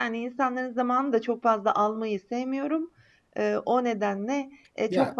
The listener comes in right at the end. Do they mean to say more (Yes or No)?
No